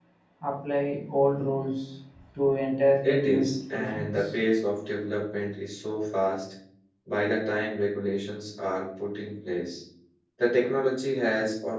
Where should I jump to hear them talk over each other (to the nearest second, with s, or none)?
3 s